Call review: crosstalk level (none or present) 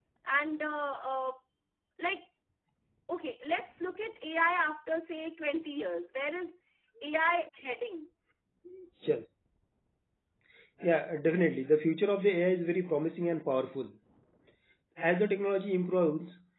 none